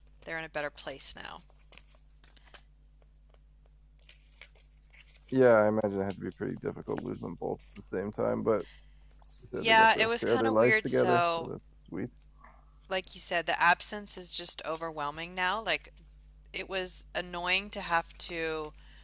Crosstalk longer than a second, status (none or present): present